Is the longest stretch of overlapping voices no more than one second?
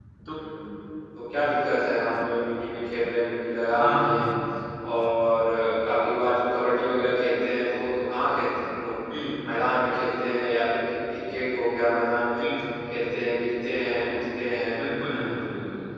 Yes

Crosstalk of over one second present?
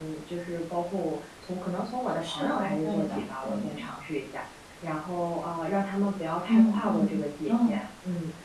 Yes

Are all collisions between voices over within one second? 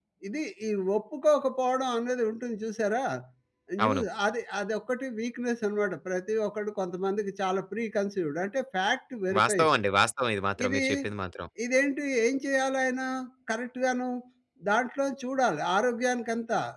Yes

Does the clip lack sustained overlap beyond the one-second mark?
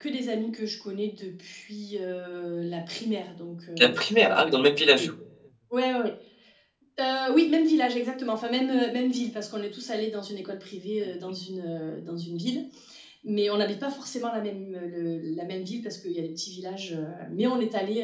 No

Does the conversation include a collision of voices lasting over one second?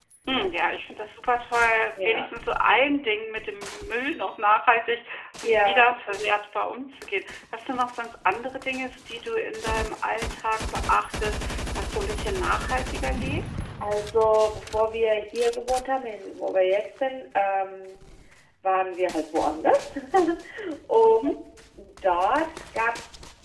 No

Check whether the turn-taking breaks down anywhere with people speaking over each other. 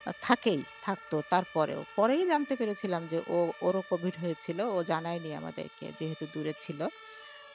No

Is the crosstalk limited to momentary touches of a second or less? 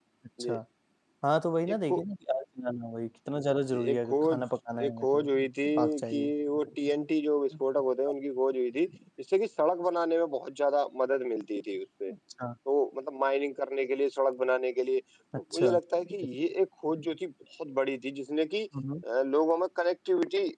No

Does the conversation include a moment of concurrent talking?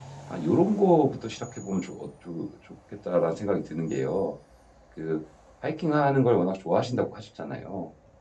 No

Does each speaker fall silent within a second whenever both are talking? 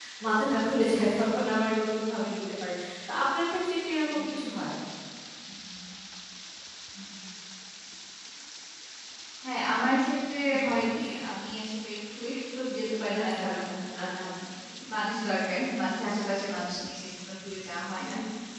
Yes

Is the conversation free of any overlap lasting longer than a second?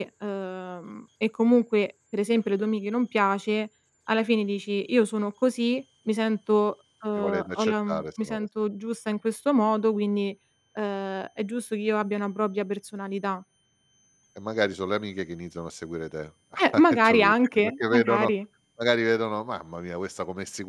No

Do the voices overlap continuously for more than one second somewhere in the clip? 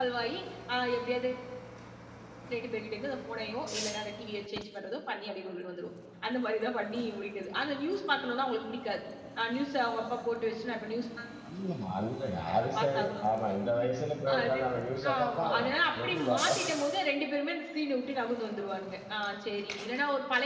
Yes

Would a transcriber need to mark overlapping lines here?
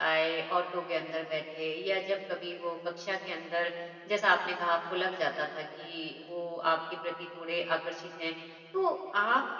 No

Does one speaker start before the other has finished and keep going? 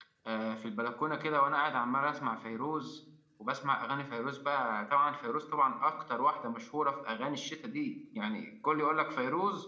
No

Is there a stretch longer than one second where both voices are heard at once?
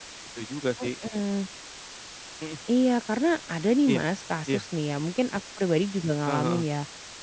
No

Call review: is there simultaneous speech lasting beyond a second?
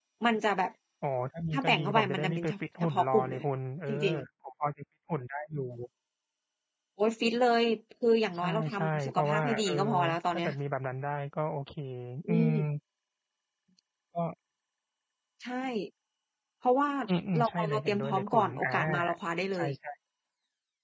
Yes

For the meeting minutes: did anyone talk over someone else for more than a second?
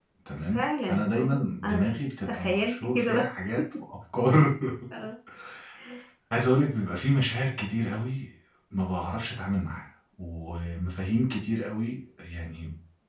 Yes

